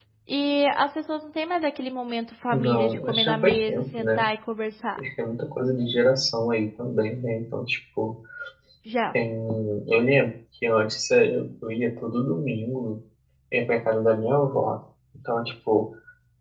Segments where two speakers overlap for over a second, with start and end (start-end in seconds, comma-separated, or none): 2.5-4.2